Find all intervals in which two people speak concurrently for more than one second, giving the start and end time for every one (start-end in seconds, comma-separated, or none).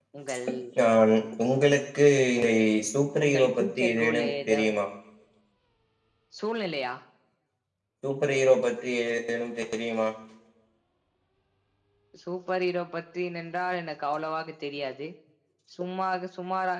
3.2-4.7